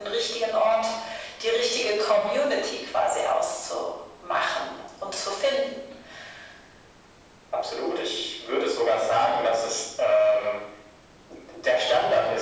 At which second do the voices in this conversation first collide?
none

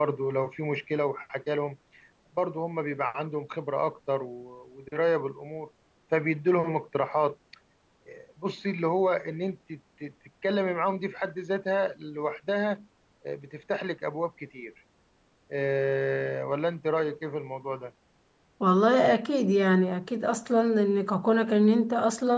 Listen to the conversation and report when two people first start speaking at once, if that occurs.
none

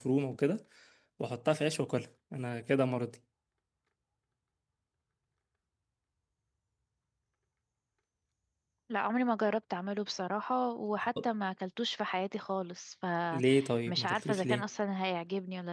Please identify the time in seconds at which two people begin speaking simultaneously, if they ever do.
13.3 s

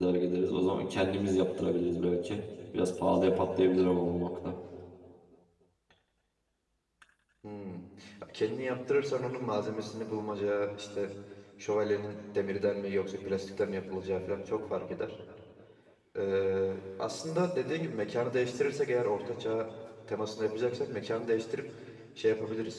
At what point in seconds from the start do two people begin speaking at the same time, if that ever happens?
none

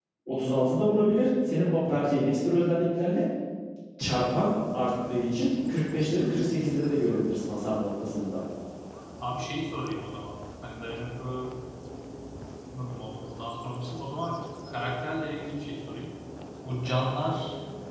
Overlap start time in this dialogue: none

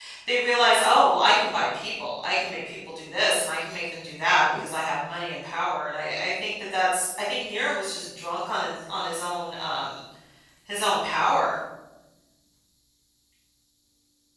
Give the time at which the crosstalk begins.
none

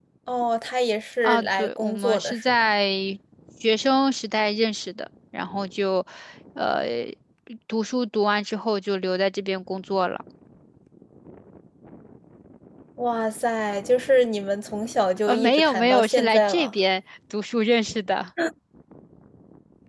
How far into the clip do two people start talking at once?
1.2 s

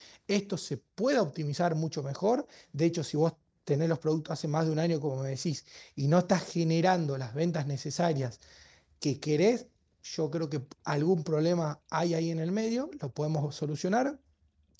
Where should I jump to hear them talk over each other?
none

